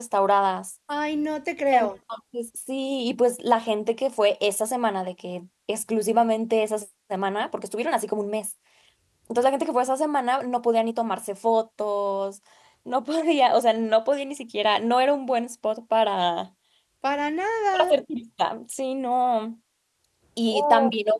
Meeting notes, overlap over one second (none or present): none